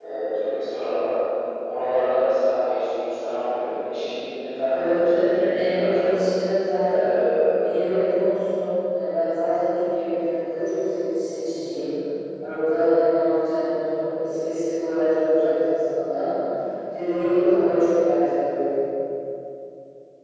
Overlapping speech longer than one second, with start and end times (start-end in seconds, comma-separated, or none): 4.7-6.2